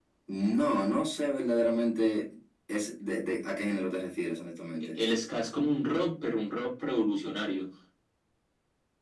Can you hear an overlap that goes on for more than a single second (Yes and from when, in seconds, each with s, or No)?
No